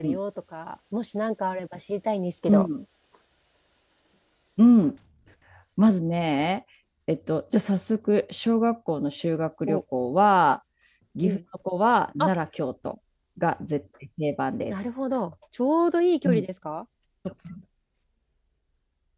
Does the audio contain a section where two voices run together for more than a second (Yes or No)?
No